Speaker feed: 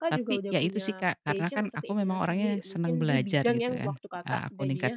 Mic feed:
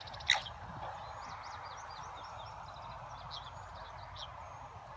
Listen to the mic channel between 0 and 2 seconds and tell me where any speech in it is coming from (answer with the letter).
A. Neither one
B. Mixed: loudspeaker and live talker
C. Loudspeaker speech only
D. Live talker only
A